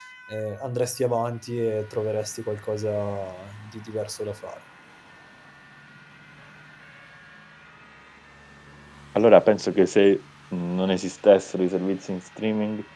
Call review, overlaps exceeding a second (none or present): none